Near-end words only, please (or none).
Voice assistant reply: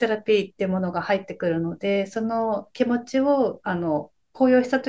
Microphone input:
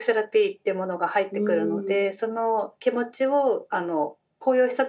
うーん、